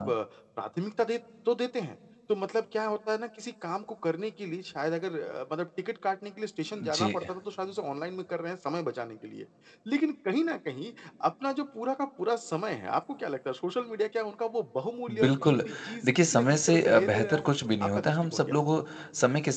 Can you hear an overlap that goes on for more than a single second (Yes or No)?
Yes